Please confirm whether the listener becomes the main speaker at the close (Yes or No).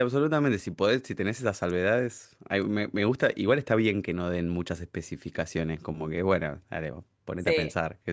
Yes